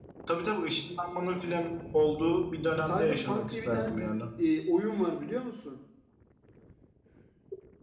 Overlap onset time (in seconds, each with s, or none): 2.8 s